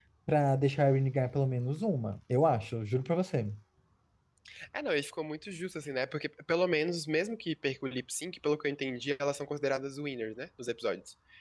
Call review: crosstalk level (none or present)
none